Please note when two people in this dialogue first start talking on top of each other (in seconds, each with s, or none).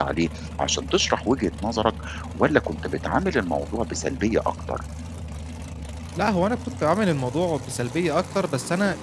none